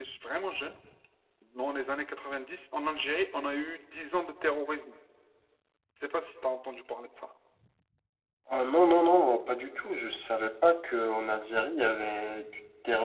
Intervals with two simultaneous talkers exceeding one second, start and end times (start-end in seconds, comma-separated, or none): none